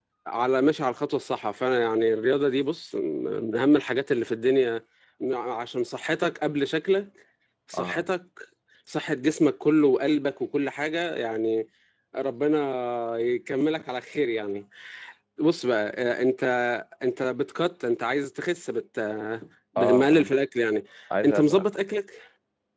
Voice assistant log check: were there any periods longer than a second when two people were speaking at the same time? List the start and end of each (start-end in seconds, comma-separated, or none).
none